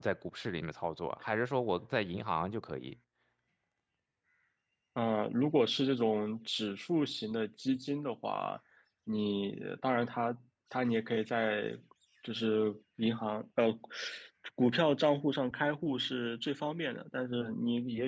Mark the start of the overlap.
none

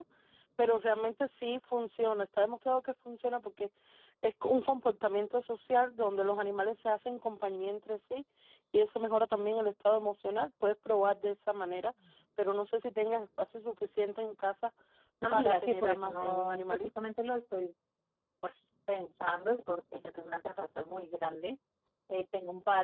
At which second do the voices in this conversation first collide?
15.3 s

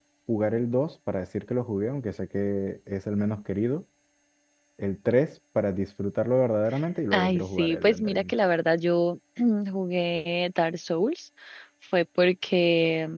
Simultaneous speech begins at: 7.1 s

